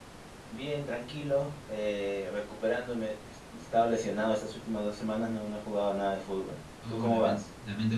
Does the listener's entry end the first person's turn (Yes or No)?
Yes